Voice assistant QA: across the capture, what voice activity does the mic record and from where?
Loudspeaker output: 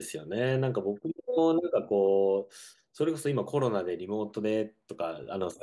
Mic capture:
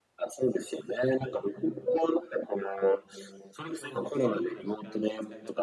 both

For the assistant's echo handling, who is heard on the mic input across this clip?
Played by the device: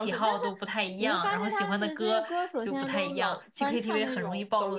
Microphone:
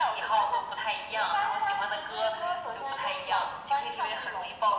echo only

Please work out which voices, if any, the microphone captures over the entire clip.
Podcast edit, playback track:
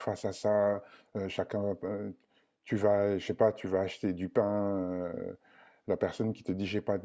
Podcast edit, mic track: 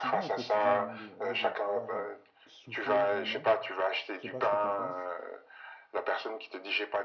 both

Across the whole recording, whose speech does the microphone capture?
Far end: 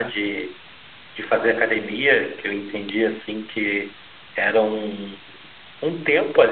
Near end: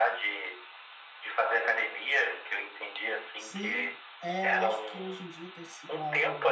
both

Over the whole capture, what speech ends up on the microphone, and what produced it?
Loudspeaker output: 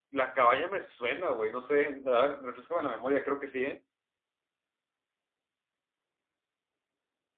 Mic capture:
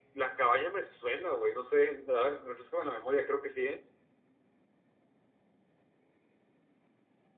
echo only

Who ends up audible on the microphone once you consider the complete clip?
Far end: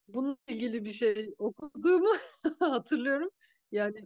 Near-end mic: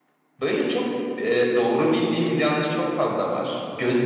user only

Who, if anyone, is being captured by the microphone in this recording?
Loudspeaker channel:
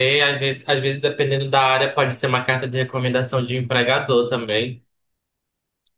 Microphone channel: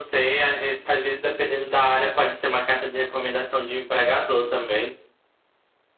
echo only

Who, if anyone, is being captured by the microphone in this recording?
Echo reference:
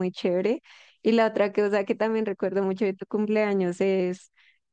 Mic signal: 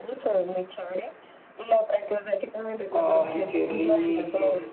both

